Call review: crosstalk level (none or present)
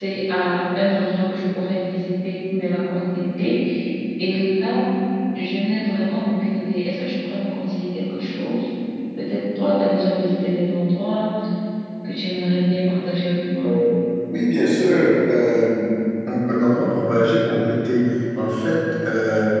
none